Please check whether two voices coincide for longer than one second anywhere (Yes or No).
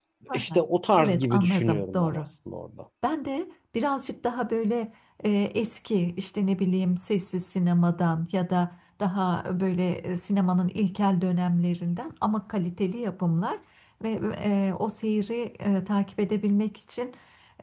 Yes